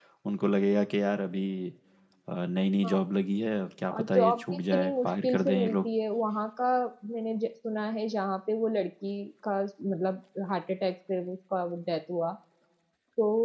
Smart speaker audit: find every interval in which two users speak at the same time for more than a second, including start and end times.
3.9-5.8

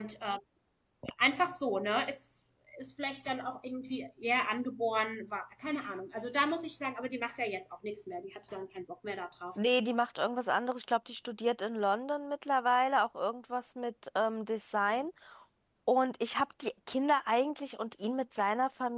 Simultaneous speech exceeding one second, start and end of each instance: none

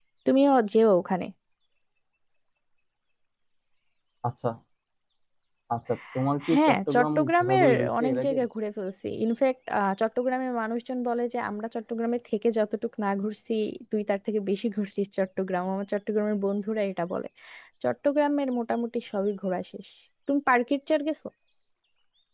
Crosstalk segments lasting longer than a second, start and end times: 6.5-8.3

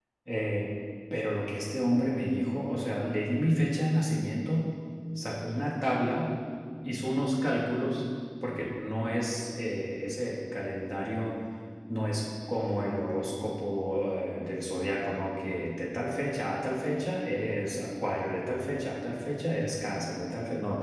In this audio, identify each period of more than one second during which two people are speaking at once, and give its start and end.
none

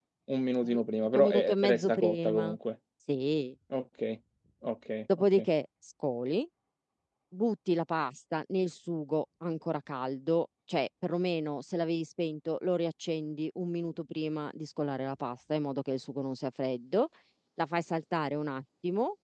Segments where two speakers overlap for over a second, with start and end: 0.6-2.5

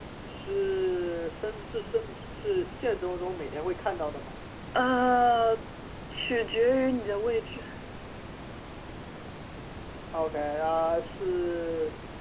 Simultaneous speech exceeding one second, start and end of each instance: none

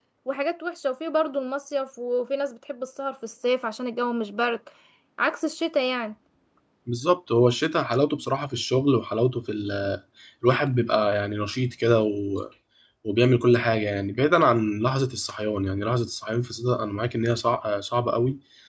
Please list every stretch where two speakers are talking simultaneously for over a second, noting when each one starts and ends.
none

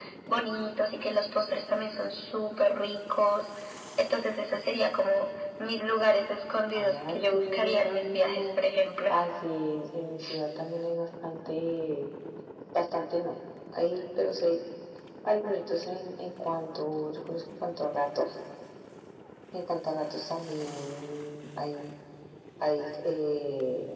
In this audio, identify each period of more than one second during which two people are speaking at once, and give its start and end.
6.8-8.6

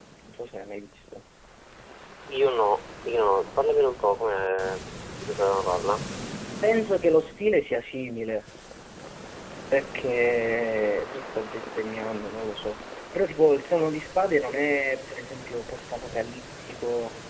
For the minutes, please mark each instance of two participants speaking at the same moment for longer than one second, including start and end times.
none

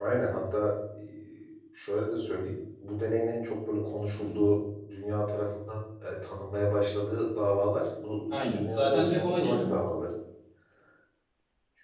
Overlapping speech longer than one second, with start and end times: 8.3-9.8

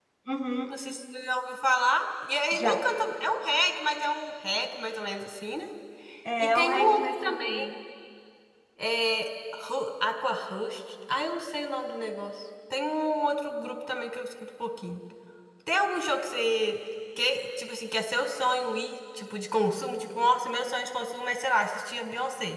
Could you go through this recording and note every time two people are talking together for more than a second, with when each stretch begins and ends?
6.4-7.7

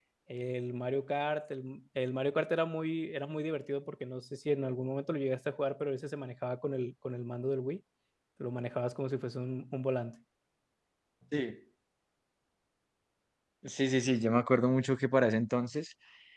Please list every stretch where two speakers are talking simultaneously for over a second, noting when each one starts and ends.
none

